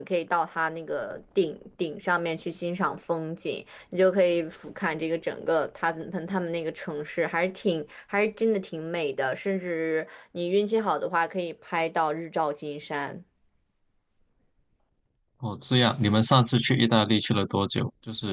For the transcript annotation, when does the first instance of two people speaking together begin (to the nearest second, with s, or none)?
none